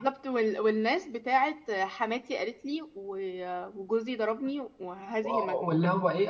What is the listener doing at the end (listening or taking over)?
taking over